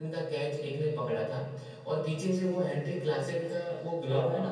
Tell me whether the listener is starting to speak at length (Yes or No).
Yes